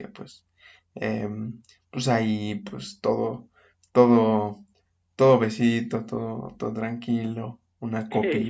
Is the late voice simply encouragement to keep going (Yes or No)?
Yes